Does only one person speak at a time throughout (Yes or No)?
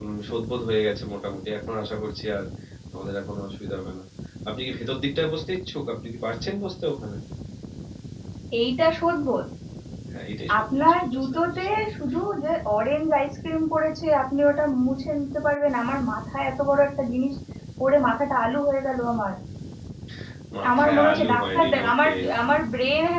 No